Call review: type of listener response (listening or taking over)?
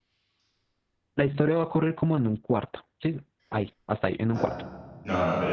taking over